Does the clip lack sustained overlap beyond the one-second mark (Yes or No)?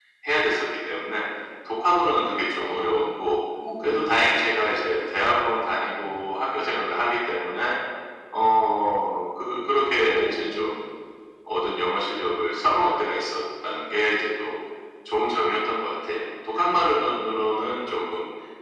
Yes